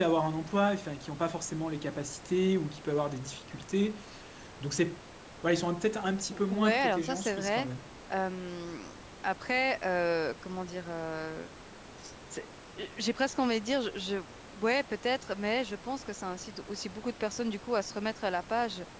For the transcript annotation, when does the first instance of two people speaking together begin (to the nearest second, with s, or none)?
6 s